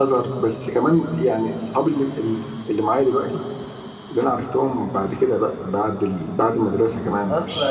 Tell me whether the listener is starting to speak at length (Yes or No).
Yes